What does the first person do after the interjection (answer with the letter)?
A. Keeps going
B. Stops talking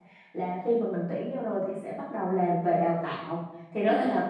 A